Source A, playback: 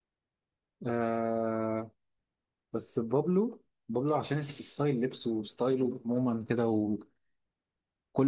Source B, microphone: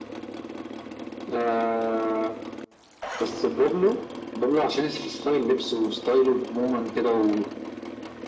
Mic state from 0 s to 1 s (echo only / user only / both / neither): neither